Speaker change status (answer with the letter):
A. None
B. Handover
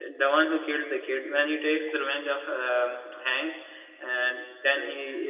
A